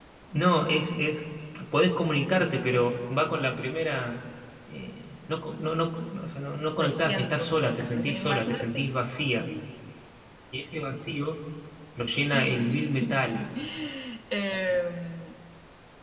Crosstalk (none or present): present